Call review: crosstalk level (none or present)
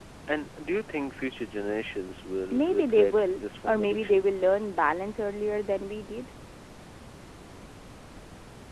present